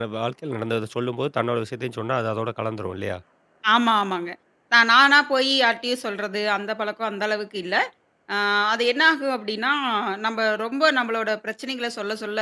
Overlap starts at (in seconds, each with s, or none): none